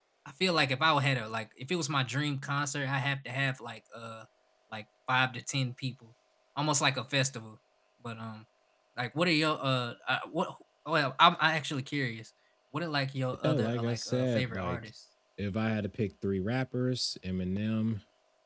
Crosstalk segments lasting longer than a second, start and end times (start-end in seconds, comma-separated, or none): 13.4-14.9